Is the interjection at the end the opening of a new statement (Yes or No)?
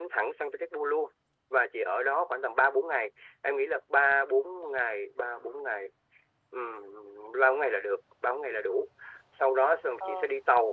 No